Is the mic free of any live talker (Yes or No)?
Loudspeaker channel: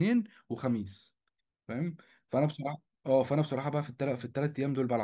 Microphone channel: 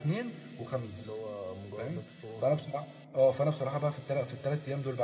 No